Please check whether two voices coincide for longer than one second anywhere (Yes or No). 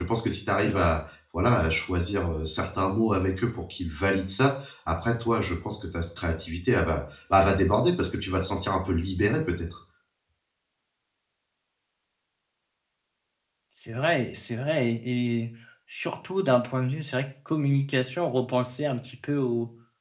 No